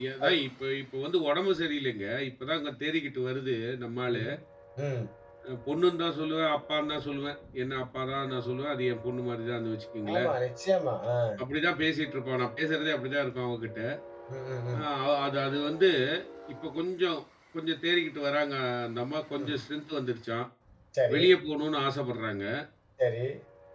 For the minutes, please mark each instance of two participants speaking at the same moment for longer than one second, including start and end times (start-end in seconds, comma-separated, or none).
none